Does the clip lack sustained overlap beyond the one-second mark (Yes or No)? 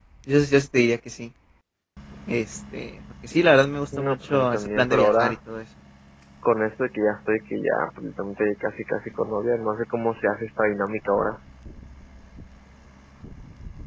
No